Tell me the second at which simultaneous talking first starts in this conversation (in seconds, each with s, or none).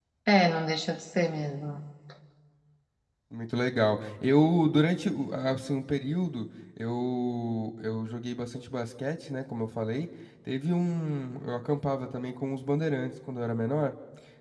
none